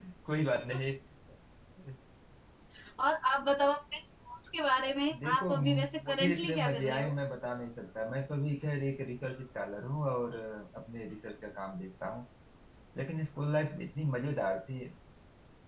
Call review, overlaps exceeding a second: present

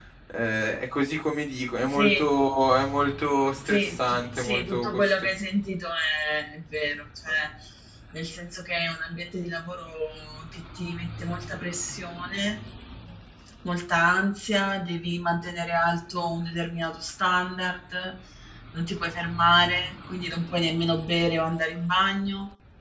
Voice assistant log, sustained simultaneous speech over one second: present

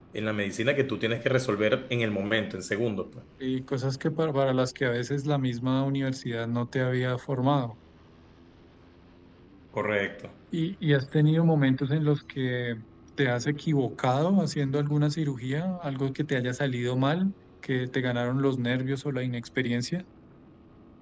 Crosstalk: none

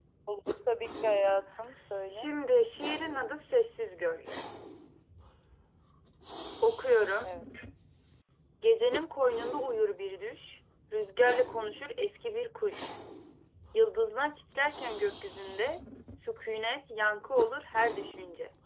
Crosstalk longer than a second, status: none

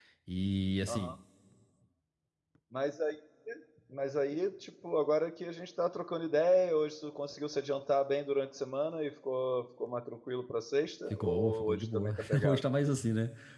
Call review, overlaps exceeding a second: present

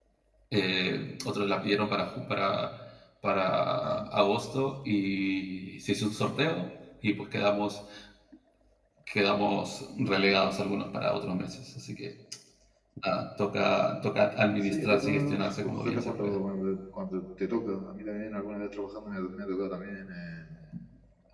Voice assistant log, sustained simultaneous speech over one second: present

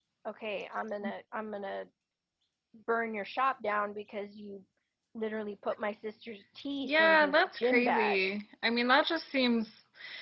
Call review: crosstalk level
present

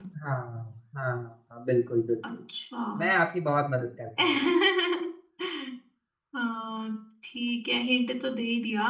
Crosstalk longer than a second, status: none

